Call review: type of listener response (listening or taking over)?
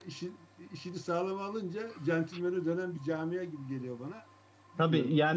taking over